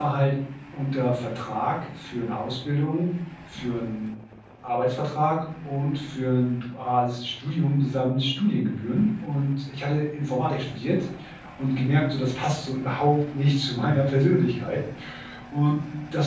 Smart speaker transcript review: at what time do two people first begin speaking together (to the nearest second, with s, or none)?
none